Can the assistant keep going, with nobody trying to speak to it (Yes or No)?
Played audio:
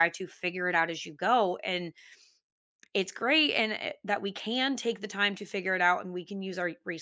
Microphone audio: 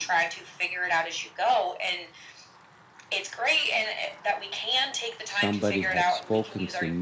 No